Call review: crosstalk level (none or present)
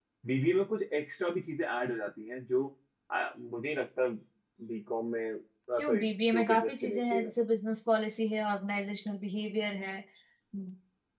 present